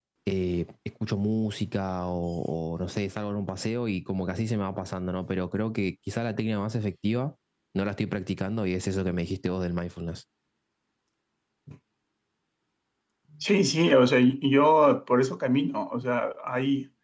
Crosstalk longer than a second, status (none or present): none